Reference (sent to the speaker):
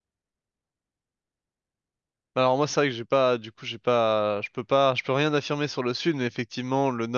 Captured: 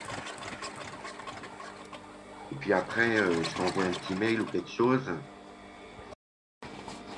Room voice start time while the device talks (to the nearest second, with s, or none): 2 s